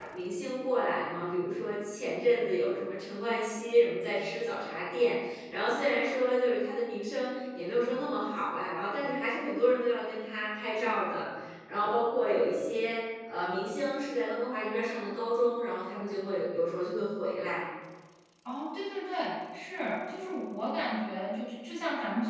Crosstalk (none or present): none